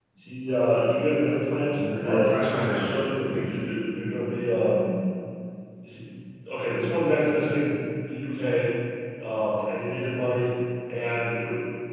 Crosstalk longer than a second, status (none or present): present